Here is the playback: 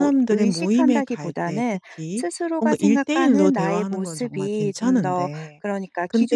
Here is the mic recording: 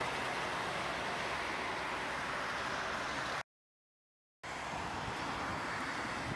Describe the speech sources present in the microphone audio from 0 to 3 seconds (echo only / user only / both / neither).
neither